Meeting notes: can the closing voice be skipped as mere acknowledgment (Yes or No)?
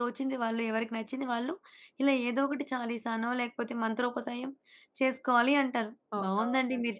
Yes